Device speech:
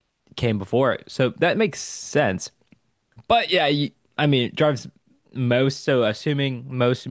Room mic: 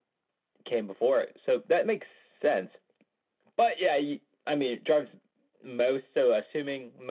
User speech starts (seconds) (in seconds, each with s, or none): none